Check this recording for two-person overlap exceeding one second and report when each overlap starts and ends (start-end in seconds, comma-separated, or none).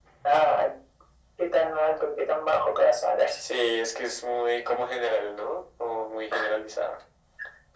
none